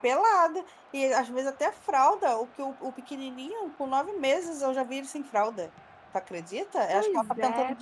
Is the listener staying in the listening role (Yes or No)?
Yes